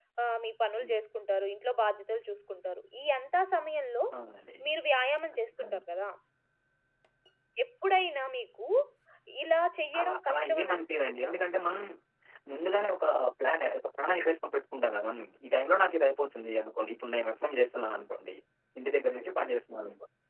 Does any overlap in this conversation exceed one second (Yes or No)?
Yes